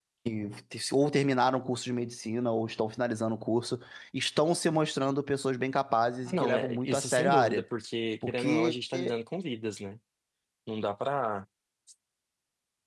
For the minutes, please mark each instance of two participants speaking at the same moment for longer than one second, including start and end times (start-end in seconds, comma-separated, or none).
6.2-7.6